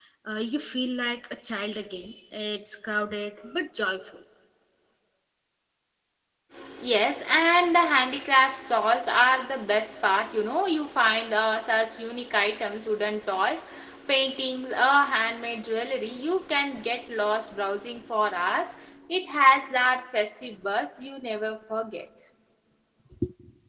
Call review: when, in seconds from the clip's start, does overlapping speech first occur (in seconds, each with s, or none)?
none